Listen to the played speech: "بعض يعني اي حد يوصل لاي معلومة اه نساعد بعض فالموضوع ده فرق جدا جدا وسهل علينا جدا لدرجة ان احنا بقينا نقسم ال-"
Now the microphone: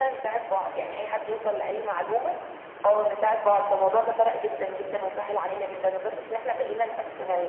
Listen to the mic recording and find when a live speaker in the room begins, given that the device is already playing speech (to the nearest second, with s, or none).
none